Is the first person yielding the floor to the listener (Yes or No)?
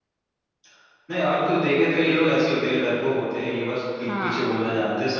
No